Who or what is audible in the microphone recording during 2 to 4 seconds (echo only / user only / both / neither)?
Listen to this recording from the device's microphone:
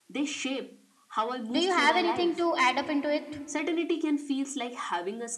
both